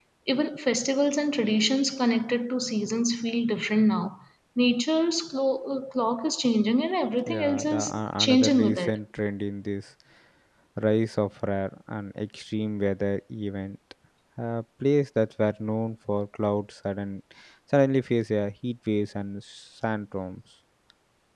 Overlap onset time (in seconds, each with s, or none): 7.3 s